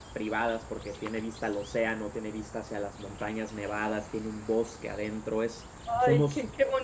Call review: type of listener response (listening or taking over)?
taking over